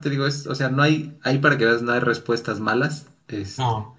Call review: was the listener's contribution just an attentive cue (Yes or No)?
Yes